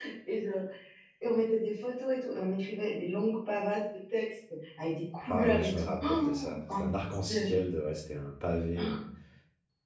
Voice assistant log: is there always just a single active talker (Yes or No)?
No